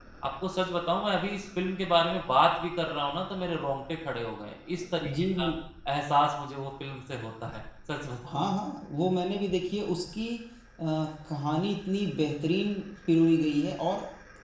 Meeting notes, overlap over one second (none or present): none